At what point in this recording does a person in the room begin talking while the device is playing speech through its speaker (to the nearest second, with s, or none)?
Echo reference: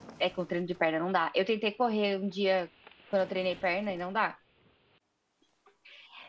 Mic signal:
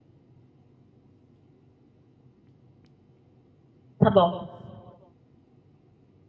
4 s